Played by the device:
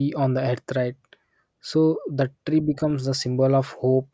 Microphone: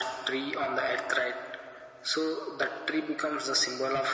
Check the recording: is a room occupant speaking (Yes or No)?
No